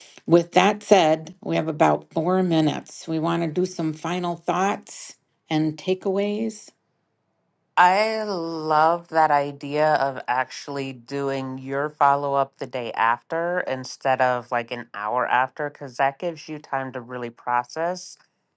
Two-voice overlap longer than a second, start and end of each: none

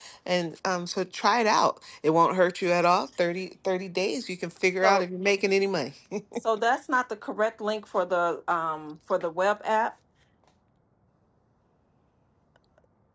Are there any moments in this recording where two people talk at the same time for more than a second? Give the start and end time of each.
none

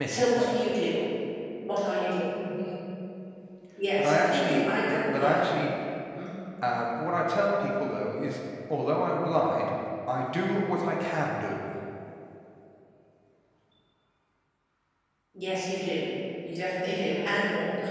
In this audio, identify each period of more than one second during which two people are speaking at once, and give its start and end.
4.0-5.4

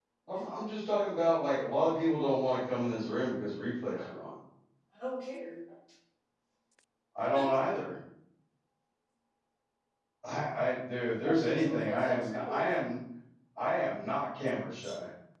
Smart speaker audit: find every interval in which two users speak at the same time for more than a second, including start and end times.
11.2-12.7

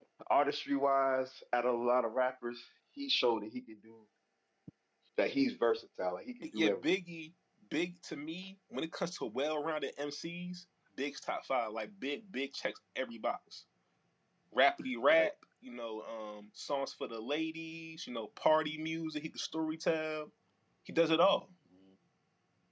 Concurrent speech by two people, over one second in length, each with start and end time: none

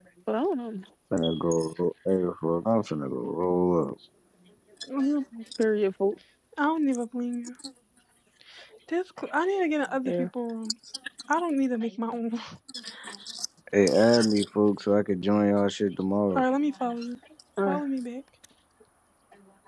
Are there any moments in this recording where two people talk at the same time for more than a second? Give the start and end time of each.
none

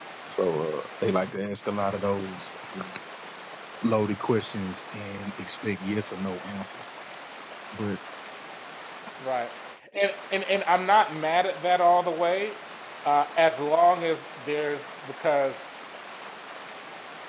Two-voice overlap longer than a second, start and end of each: none

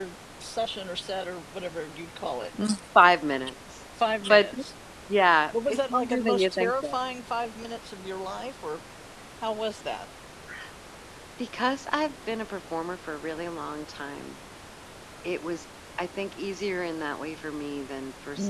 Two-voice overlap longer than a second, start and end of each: 5.7-7.0

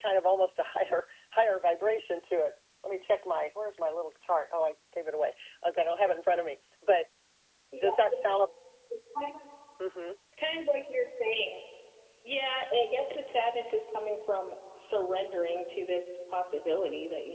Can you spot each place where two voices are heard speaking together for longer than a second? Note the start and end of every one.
none

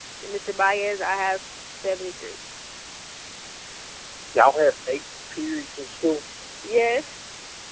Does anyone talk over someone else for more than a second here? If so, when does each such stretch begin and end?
none

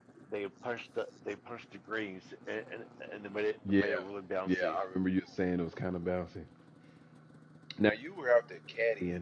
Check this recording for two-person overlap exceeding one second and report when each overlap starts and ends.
none

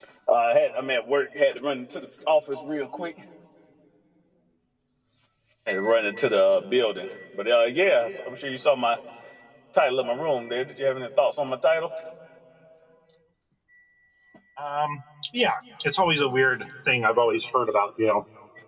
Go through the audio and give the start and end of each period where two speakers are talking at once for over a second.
none

